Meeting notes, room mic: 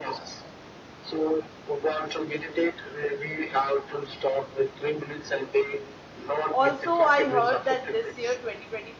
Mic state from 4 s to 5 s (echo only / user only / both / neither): echo only